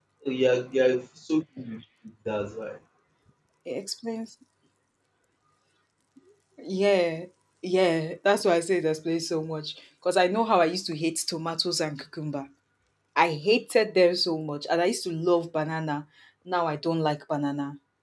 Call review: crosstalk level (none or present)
none